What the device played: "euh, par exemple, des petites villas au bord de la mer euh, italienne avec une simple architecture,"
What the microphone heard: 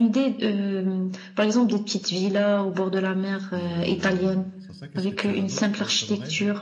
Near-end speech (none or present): present